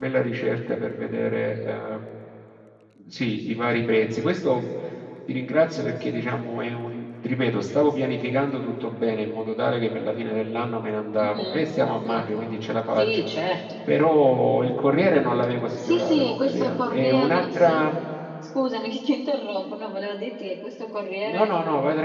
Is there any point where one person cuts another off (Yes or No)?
Yes